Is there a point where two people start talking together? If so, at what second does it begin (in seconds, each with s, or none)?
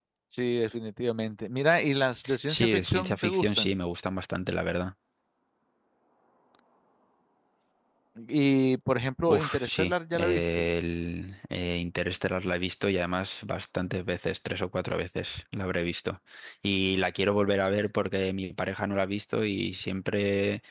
2.5 s